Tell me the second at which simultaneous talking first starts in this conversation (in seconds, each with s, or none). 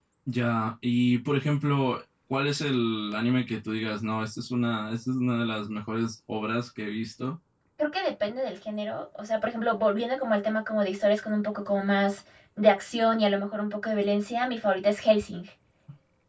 none